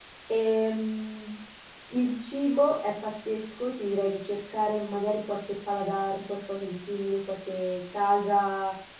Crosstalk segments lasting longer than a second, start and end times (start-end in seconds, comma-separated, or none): none